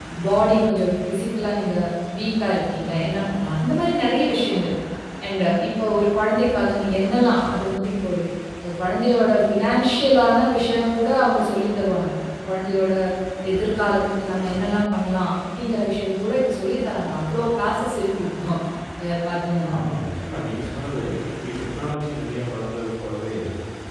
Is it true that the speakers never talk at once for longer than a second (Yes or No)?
Yes